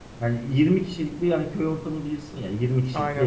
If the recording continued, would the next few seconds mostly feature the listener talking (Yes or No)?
No